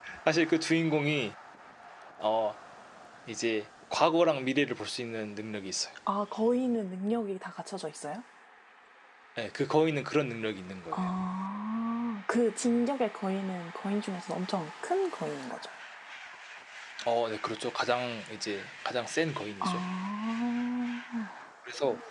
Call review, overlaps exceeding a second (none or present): none